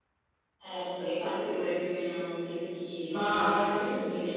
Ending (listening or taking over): taking over